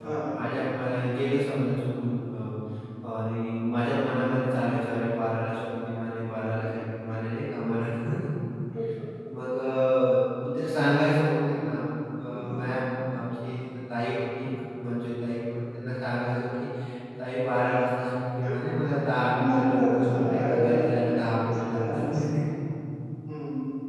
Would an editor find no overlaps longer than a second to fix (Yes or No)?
No